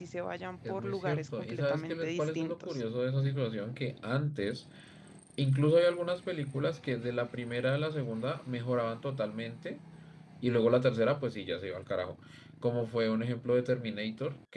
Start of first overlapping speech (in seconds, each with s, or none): 0.7 s